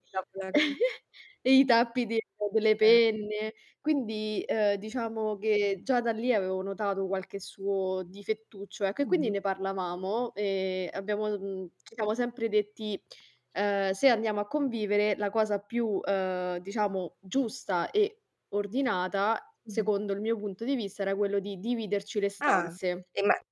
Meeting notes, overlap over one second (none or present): none